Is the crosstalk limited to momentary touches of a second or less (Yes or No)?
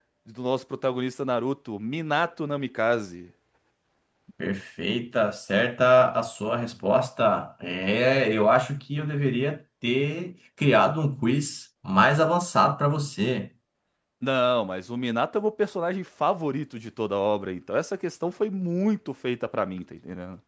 Yes